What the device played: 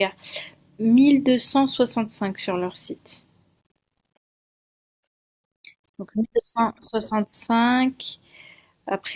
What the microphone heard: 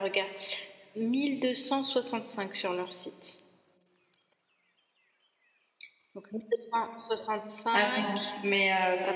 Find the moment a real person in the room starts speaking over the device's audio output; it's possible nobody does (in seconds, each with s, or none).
7.7 s